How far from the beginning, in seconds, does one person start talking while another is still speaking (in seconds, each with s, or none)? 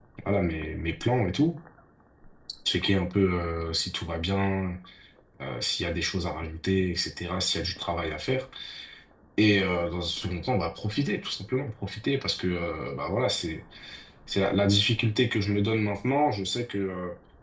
none